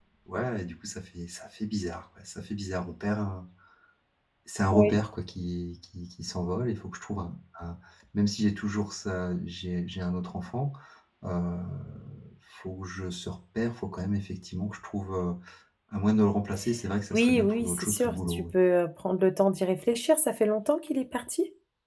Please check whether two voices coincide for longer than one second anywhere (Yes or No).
Yes